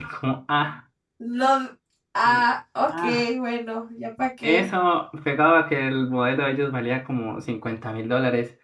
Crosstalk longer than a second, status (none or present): none